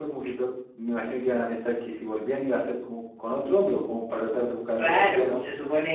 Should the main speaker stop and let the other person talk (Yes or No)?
Yes